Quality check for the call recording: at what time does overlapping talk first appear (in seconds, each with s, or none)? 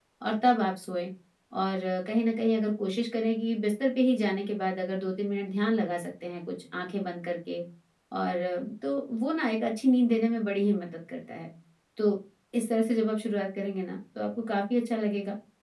none